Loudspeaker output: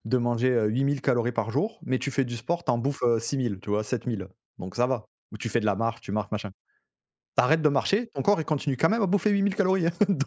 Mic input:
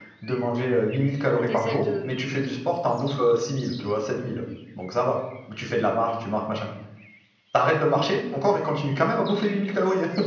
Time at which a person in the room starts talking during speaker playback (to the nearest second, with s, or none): 1 s